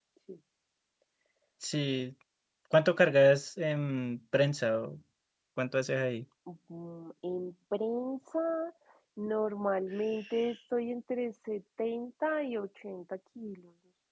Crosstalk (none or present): none